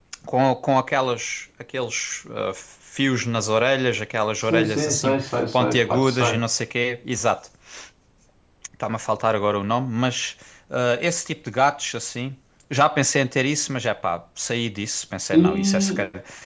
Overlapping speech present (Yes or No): Yes